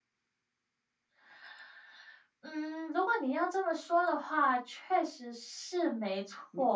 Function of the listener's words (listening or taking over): taking over